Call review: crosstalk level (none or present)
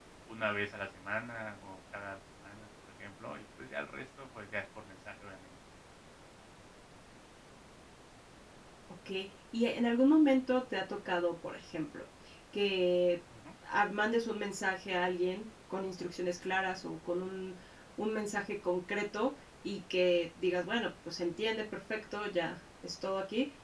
none